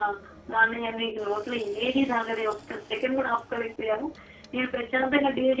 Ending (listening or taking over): listening